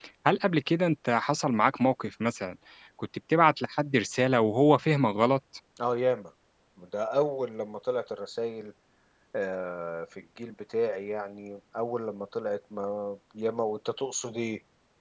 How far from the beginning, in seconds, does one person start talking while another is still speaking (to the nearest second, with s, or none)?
none